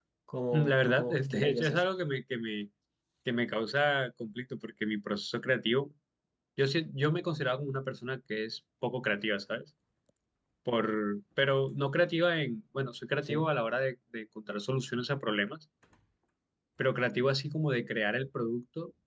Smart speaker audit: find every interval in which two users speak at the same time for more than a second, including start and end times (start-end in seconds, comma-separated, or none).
0.5-1.8